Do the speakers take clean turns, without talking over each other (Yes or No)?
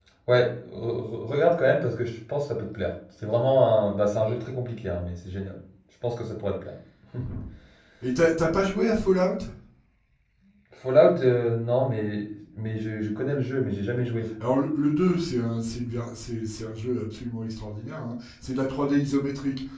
Yes